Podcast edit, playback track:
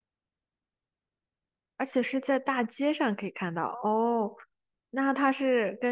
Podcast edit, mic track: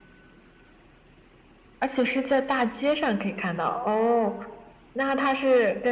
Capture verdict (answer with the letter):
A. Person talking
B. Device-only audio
B